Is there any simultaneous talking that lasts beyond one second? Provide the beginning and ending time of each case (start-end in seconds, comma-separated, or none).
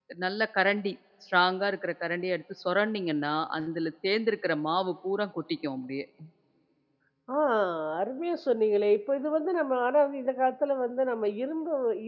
none